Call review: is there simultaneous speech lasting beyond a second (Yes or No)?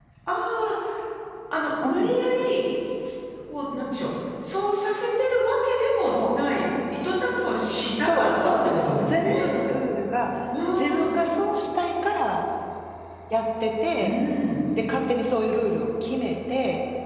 Yes